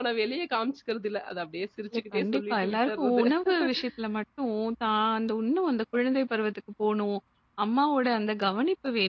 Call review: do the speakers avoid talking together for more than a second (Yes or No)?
No